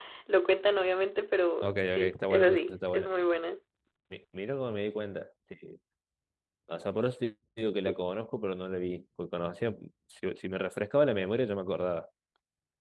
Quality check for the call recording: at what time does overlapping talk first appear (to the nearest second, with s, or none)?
2 s